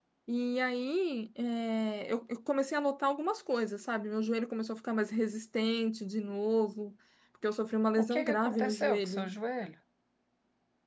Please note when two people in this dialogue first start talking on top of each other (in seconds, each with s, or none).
8.0 s